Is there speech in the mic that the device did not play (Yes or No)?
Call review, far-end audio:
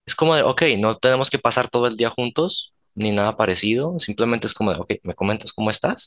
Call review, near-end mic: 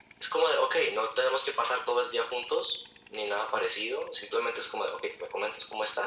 No